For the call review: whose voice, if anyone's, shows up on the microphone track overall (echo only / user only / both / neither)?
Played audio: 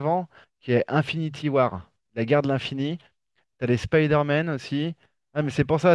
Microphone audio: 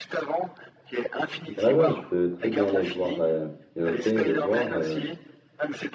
both